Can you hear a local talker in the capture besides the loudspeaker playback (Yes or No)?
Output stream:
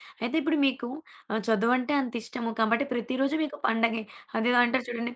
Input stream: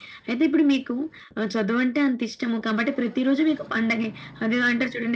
No